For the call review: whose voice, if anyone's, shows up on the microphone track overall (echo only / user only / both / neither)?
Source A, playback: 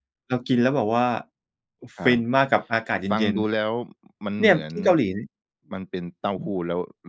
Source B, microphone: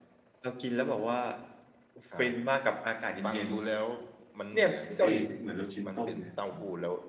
both